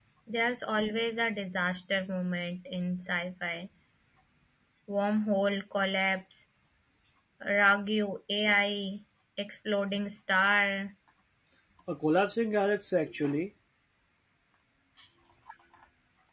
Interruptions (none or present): none